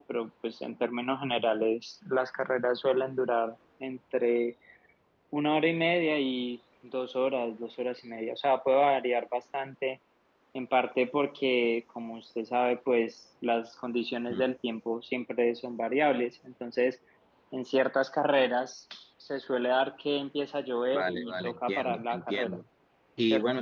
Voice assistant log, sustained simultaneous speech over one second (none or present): present